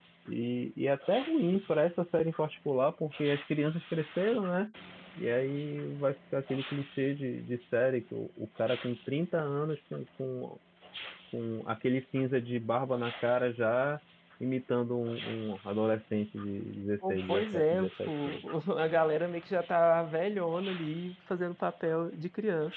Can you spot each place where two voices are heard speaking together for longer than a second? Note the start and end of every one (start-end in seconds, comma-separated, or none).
17.1-18.4